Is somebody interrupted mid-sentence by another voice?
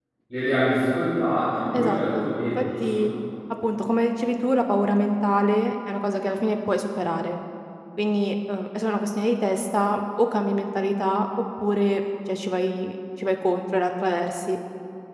Yes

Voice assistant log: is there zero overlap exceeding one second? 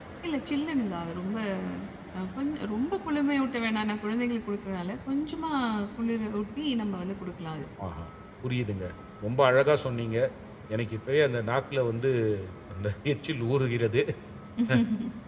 Yes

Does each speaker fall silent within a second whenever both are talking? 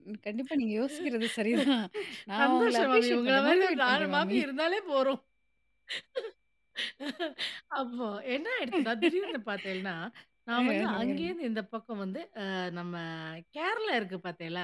No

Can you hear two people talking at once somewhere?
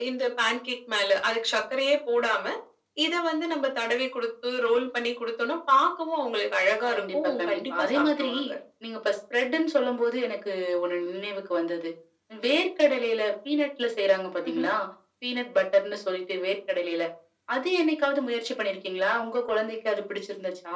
Yes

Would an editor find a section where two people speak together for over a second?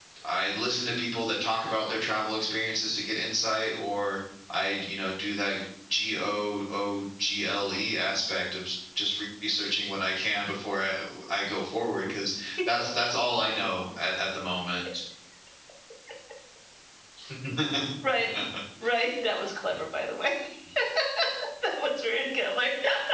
No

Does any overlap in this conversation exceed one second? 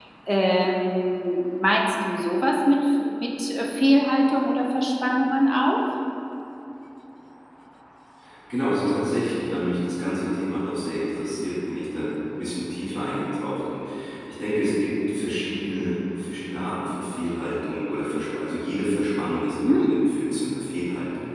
No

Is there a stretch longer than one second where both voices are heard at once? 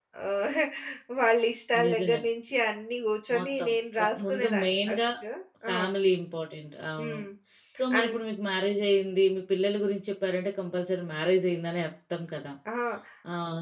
Yes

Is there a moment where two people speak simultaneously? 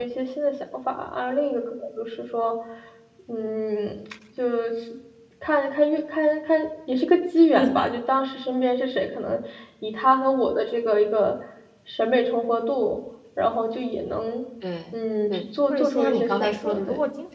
Yes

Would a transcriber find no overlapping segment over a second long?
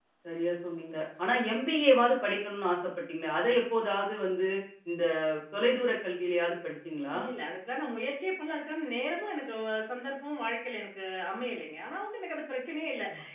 Yes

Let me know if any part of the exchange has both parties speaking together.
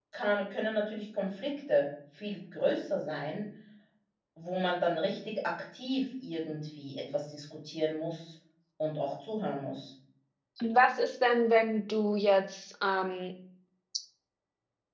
No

